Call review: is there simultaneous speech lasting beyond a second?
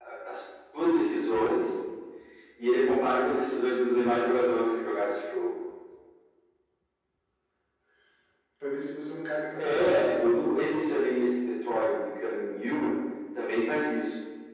Yes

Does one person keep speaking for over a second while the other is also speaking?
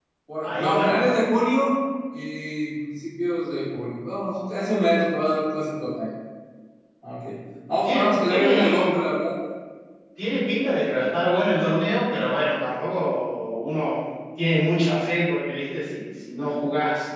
Yes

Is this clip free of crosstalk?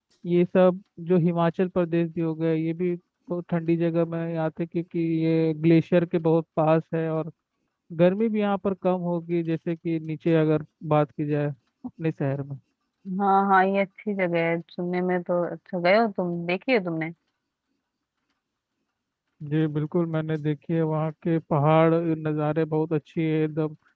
Yes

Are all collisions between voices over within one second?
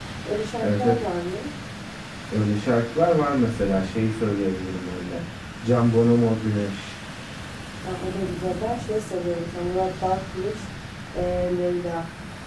Yes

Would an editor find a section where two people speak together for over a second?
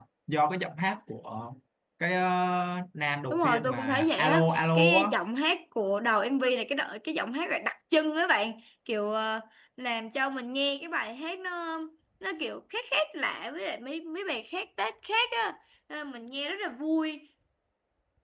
Yes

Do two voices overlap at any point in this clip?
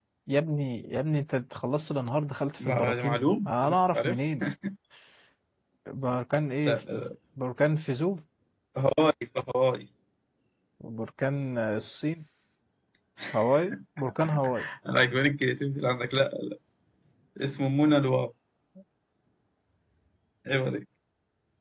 Yes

